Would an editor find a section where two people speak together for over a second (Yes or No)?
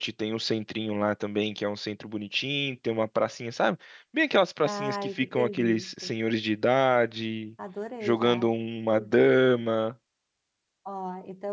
Yes